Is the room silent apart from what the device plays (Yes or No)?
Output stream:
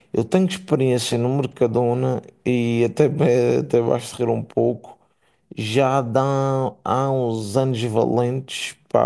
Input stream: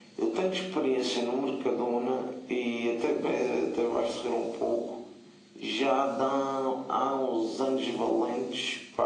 Yes